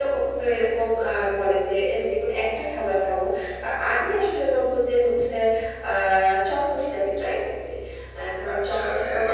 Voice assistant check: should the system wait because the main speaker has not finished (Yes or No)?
No